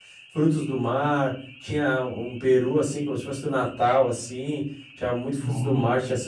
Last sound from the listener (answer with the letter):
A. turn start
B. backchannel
B